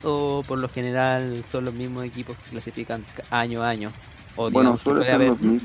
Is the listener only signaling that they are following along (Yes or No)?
No